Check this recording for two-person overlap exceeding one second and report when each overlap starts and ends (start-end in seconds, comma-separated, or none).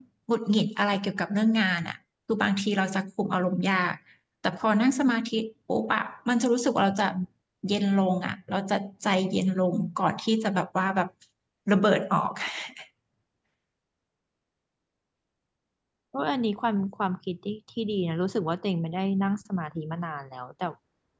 none